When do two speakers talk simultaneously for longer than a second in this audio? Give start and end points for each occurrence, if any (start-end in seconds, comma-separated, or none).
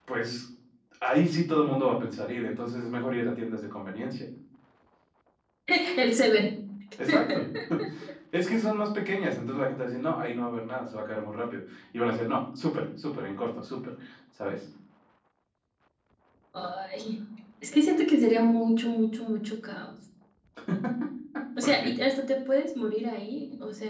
none